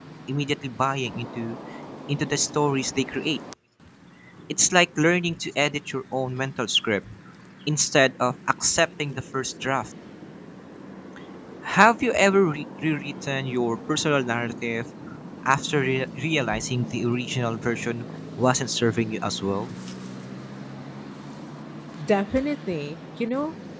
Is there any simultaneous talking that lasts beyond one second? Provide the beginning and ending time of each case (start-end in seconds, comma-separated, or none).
none